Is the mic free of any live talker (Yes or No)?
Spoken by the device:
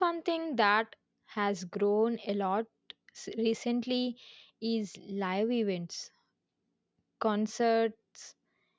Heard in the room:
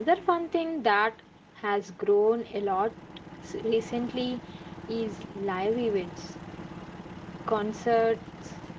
Yes